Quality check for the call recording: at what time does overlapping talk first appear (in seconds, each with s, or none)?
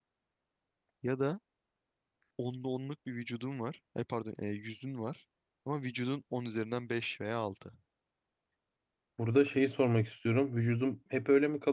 none